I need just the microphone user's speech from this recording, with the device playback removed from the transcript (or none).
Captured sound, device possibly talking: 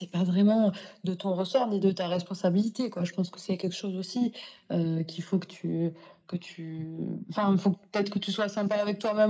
none